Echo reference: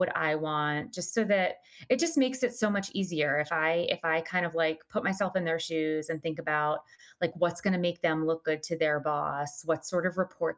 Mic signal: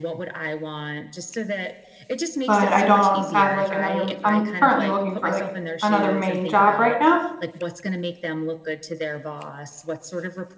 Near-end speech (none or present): present